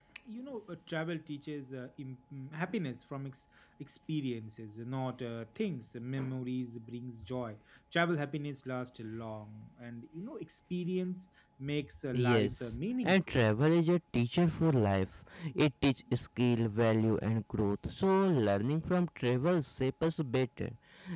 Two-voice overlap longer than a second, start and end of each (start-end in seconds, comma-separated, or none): 12.1-13.3